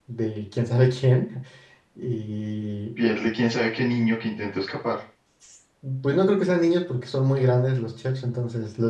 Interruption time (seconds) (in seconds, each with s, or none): none